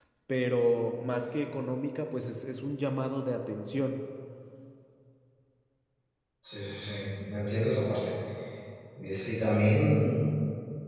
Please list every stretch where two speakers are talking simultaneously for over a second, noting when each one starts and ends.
none

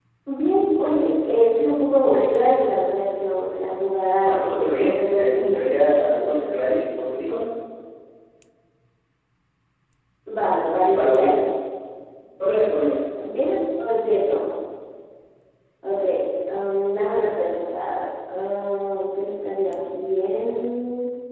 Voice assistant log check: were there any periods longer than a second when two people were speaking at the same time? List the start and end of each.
4.2-5.7

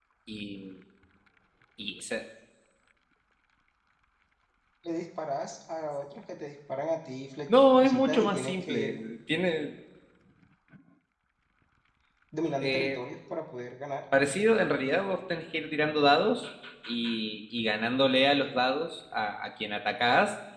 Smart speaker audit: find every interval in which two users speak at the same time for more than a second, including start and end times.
7.8-9.0

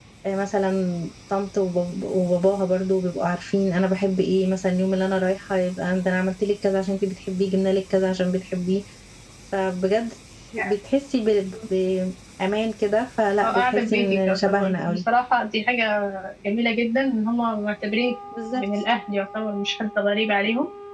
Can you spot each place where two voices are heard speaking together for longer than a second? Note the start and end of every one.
13.4-15.0

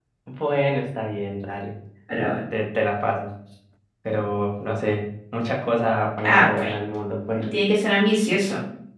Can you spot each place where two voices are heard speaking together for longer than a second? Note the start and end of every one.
none

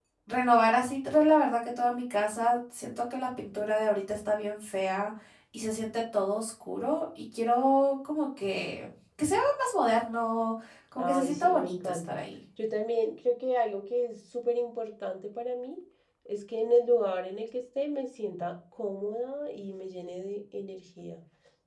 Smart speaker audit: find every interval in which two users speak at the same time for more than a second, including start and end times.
11.0-12.2

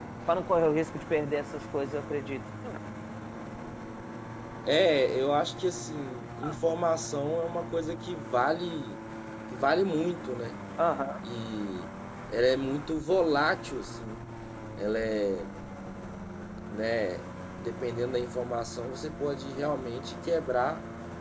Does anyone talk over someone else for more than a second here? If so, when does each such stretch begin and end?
none

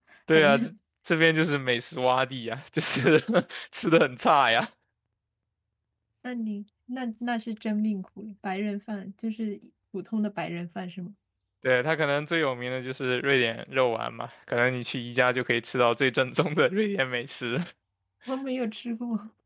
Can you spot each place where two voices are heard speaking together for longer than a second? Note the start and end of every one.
none

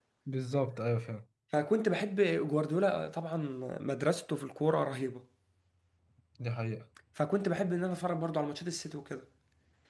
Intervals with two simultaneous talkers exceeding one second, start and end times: none

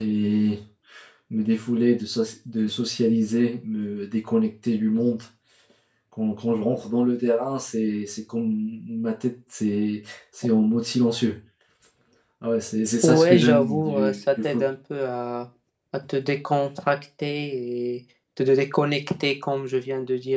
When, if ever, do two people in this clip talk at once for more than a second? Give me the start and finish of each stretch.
13.0-14.6

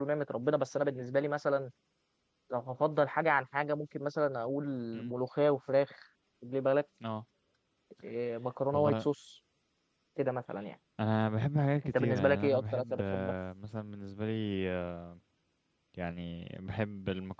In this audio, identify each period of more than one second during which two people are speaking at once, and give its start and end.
11.8-13.3

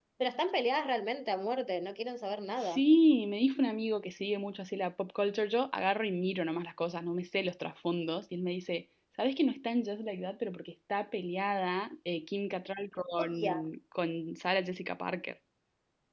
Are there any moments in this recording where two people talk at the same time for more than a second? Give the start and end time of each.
none

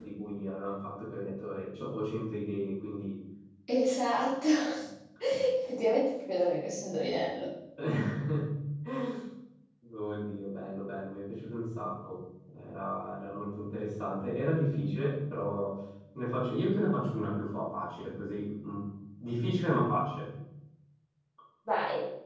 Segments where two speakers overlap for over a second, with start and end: none

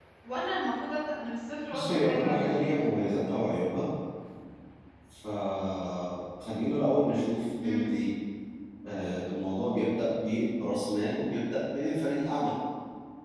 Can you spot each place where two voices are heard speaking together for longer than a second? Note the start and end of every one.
1.7-3.0

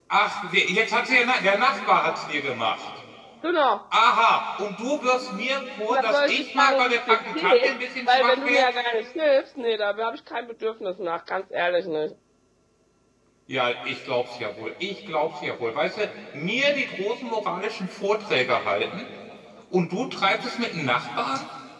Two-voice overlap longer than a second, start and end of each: 5.9-8.6

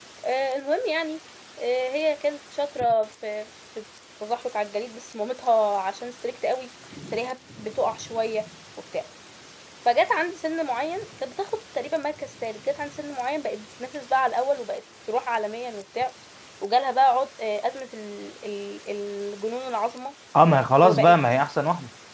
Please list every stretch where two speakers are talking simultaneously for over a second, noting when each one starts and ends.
none

